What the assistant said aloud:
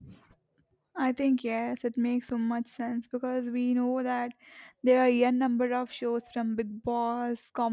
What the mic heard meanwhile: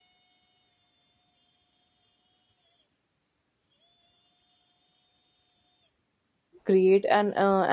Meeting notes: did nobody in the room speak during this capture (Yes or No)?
No